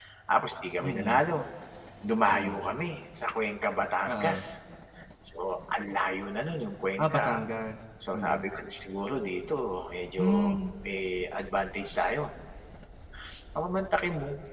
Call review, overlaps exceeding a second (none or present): none